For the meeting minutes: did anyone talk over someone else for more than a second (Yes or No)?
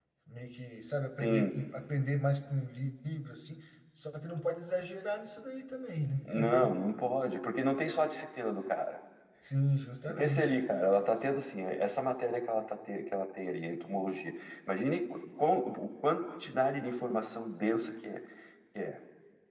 No